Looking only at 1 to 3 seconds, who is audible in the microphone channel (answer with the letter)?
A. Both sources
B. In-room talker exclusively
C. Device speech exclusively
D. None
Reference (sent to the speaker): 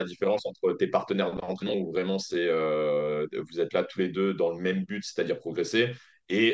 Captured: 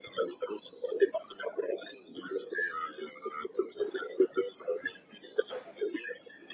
C